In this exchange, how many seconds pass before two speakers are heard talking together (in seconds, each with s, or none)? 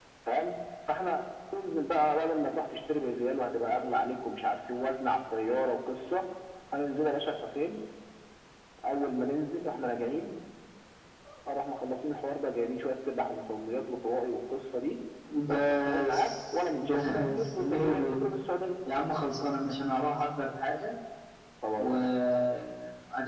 15.5 s